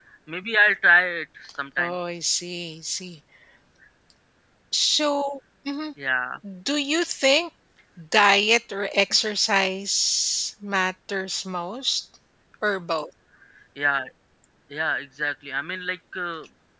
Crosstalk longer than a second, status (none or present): none